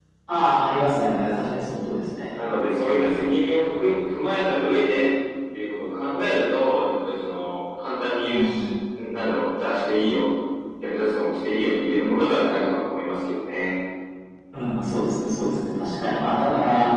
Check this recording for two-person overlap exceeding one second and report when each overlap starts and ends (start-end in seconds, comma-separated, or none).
none